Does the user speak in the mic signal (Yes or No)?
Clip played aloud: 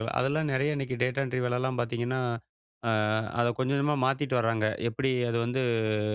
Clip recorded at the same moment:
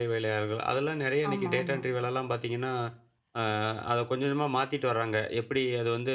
Yes